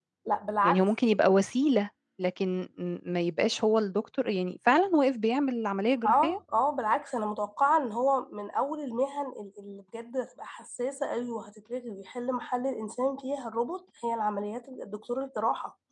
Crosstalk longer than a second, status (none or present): none